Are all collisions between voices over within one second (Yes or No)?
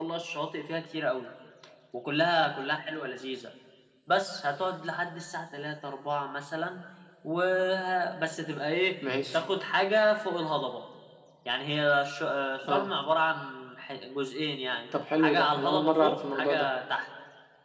No